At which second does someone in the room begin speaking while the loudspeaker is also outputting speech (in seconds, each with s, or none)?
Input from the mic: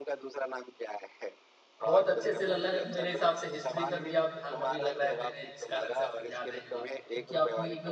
1.8 s